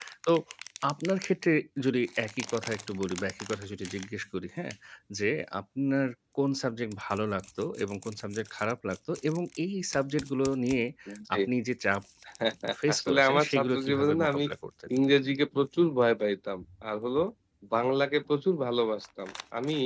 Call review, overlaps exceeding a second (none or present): present